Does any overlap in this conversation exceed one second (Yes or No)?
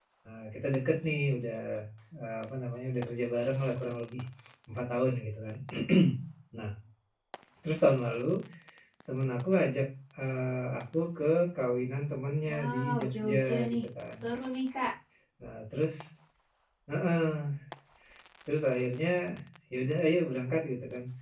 Yes